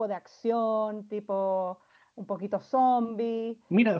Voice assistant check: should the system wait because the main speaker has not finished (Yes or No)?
No